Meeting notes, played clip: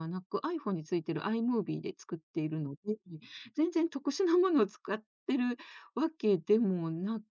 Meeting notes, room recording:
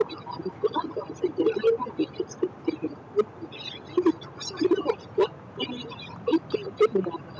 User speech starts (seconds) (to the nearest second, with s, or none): none